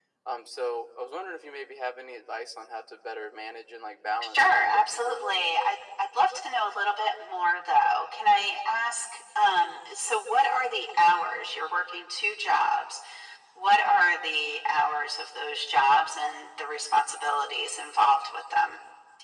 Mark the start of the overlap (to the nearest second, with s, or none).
4 s